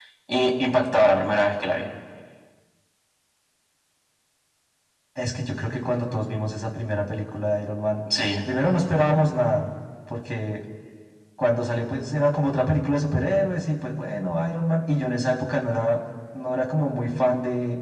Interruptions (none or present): none